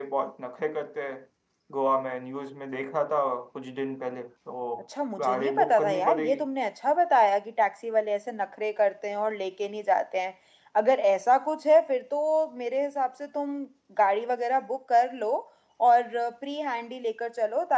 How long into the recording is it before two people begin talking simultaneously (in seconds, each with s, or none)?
5.2 s